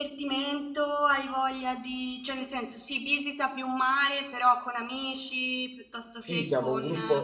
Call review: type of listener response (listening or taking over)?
taking over